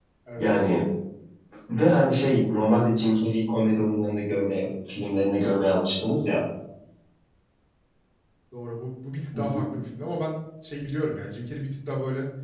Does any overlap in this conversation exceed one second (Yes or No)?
No